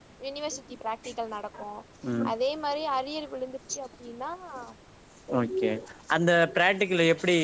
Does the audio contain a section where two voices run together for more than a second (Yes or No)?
No